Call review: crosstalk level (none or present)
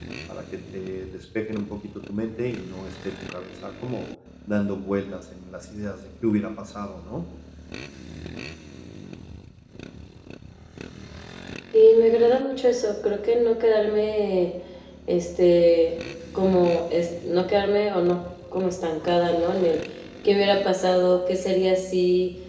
none